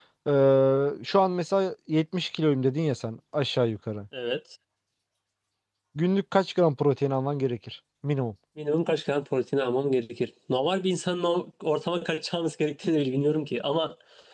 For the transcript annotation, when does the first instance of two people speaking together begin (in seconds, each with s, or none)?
none